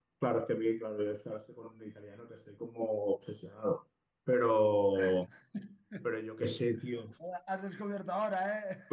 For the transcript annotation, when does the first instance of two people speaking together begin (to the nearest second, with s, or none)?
none